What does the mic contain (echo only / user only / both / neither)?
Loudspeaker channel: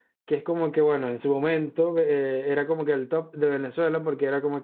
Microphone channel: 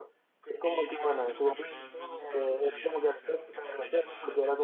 both